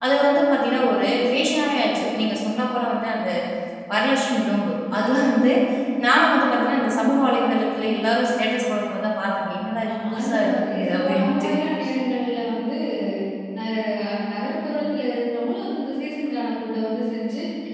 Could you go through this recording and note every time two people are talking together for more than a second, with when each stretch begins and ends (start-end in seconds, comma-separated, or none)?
9.9-11.5